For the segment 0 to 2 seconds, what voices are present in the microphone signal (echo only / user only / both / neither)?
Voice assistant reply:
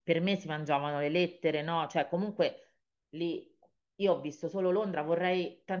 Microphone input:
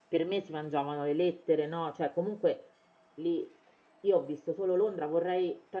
echo only